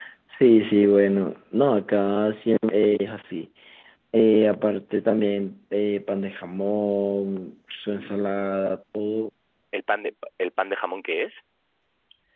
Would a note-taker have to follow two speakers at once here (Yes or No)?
No